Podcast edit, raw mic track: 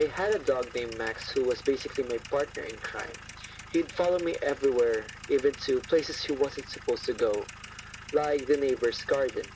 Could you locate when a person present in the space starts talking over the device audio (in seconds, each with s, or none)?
none